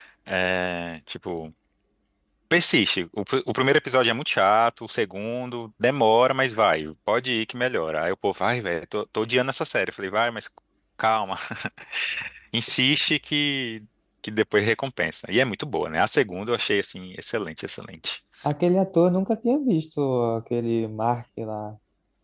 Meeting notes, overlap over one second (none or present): none